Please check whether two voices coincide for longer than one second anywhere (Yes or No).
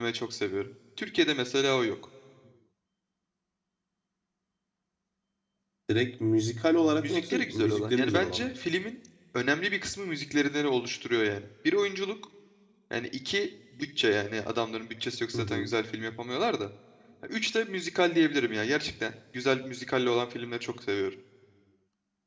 Yes